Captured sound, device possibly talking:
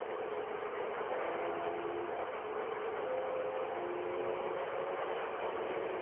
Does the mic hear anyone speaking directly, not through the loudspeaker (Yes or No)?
No